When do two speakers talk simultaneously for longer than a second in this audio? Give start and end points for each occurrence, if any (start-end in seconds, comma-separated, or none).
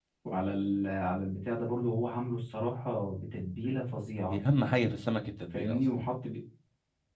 none